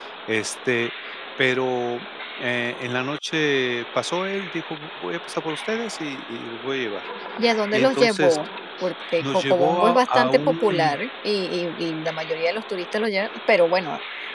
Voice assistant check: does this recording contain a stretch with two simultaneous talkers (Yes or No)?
Yes